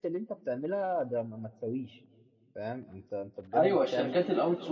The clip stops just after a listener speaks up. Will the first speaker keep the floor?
No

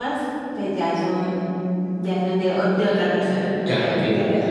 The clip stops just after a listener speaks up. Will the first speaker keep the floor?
No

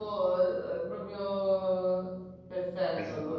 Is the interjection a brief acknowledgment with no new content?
No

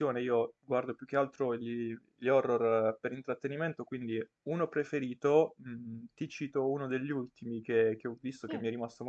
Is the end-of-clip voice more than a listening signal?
No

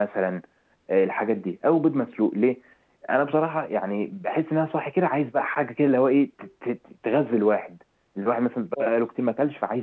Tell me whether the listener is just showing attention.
Yes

